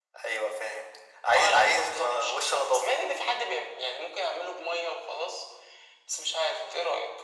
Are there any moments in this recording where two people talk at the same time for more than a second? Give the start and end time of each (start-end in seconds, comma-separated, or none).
1.4-2.9